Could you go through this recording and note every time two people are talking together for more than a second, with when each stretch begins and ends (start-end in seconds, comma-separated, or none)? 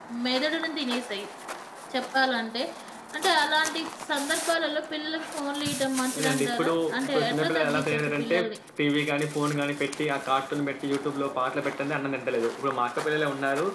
6.2-8.3